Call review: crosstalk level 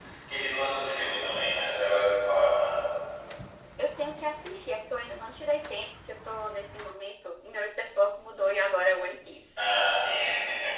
none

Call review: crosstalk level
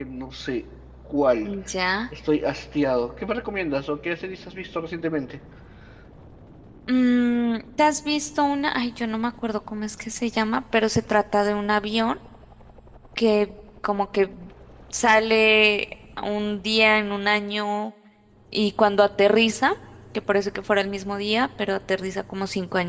none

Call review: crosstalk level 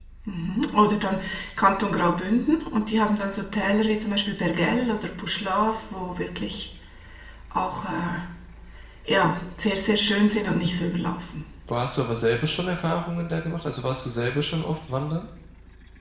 none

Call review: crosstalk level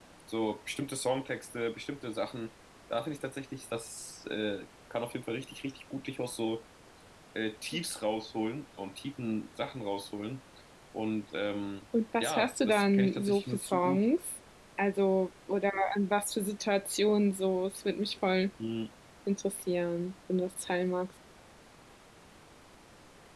present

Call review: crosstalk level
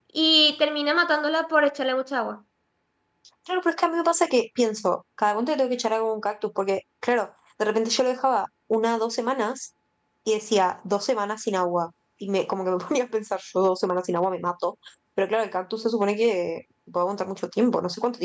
none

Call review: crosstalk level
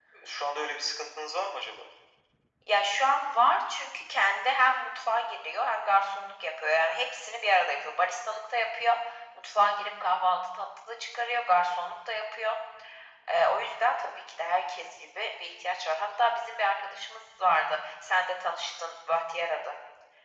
none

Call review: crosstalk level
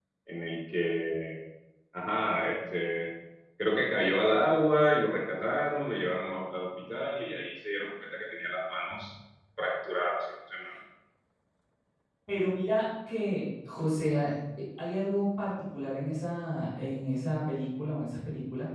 none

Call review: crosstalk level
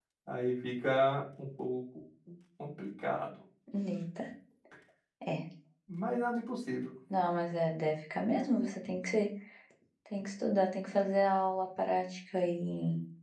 none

